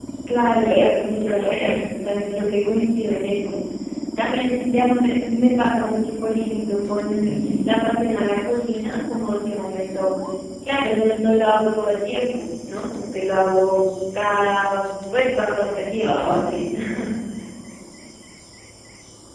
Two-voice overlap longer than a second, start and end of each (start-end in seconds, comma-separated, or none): 0.6-1.8